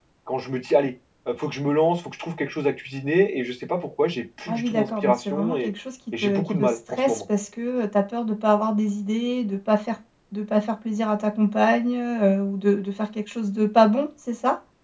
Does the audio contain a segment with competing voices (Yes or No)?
Yes